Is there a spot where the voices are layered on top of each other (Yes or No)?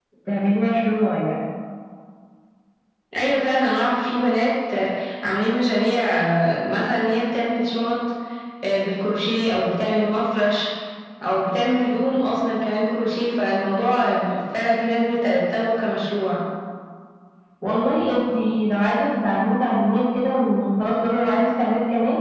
No